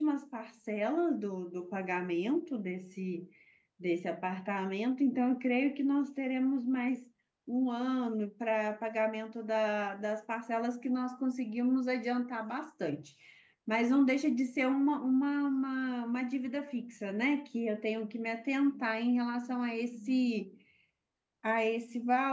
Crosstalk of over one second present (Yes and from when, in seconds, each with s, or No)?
No